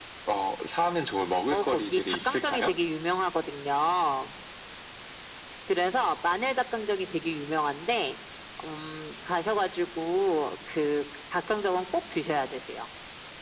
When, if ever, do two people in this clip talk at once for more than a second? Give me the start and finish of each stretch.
1.5-2.7

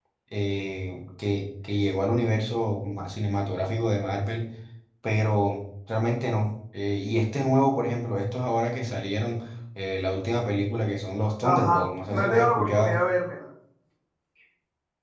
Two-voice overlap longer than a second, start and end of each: 11.4-13.1

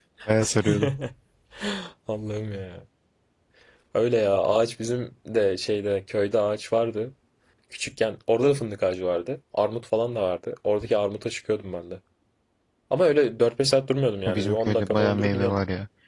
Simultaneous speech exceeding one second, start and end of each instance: 14.3-15.6

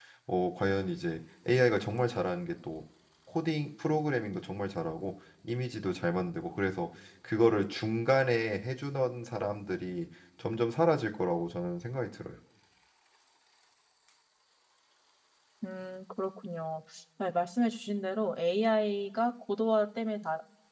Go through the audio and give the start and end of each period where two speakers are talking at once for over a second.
none

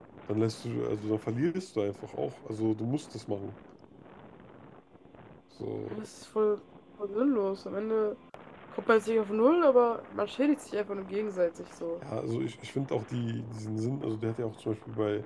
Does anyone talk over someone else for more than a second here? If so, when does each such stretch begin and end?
none

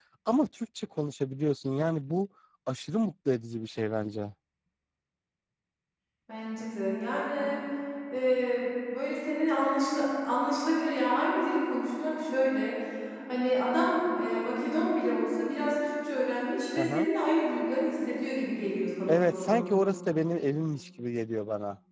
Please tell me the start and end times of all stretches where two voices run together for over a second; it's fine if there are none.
none

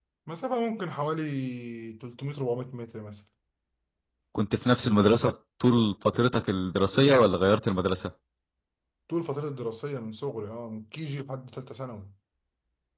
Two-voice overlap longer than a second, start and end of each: none

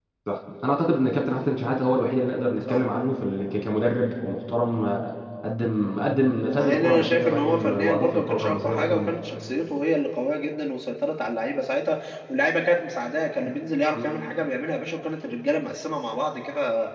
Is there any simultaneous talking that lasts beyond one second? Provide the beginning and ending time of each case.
6.5-9.1

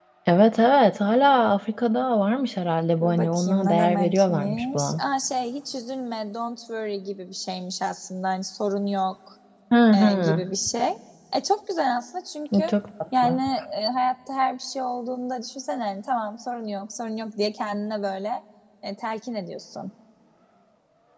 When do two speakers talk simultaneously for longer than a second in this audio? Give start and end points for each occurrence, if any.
3.0-5.0

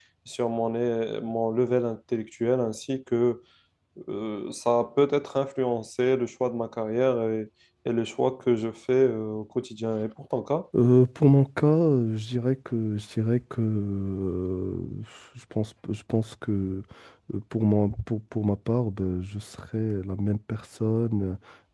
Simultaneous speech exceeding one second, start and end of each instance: none

